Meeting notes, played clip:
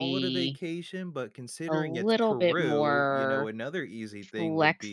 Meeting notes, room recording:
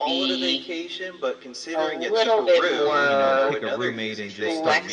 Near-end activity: present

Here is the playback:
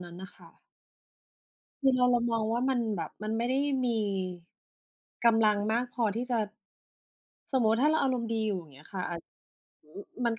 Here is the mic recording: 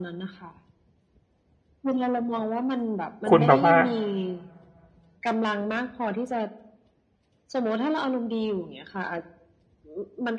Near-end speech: present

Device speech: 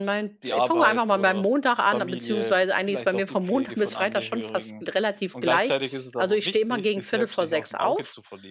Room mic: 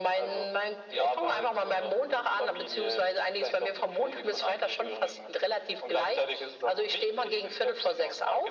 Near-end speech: none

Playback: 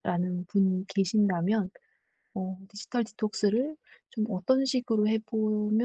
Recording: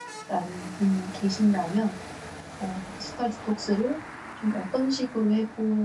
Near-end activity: none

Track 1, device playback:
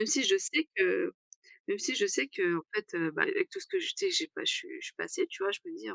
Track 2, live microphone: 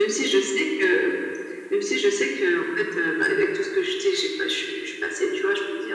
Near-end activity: none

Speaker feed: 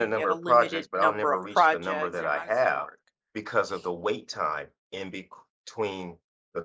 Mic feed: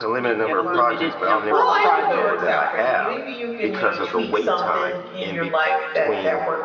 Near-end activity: present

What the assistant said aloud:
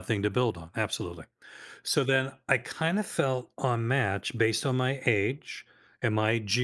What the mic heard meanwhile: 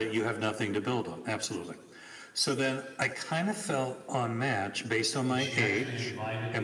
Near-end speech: present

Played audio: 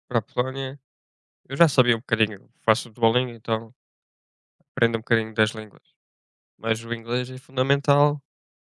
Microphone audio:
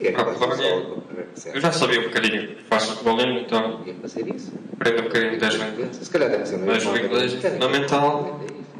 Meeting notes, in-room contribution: present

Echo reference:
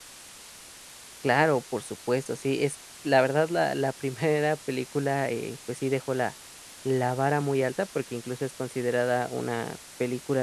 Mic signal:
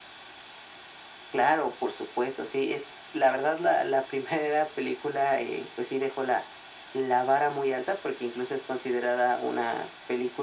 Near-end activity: none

